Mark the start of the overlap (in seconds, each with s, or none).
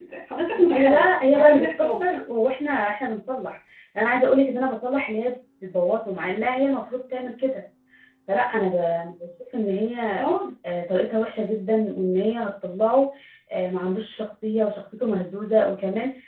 0.7 s